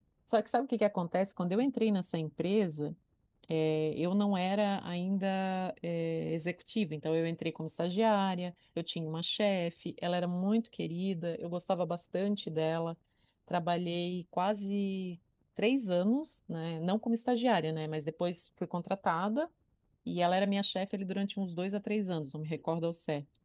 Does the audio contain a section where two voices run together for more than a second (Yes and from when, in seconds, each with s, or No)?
No